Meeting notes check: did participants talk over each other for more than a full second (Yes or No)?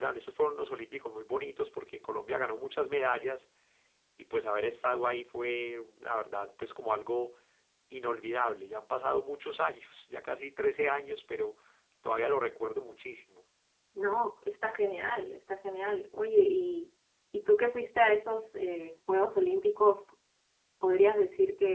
No